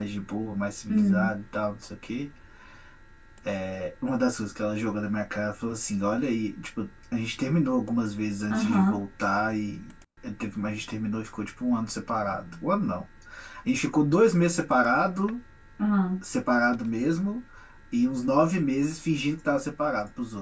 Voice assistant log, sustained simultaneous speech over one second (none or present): none